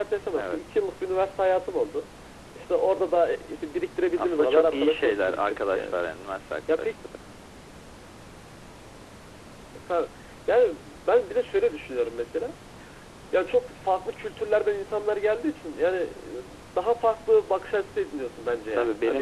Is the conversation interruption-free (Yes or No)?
No